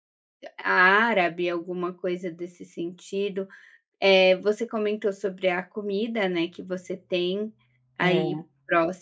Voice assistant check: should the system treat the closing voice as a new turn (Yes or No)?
No